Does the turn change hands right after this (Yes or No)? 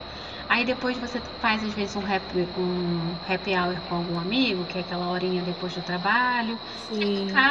No